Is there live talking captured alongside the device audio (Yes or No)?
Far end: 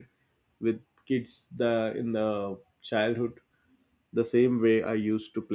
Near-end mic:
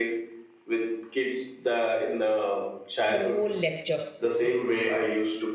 Yes